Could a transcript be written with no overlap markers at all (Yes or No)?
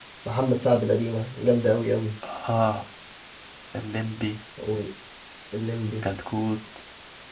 Yes